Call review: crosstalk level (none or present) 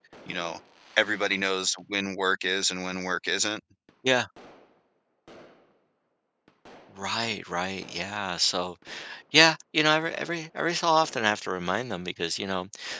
none